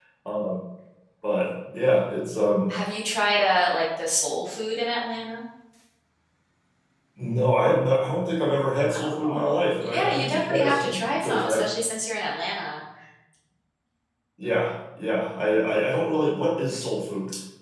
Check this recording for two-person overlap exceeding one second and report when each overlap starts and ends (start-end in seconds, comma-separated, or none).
9.0-11.6